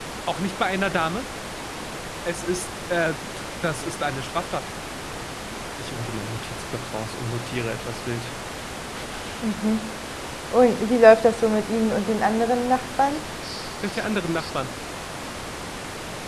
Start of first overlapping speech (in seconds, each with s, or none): none